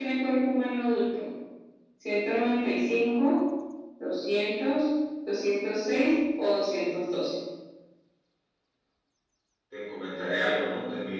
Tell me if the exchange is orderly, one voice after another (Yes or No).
Yes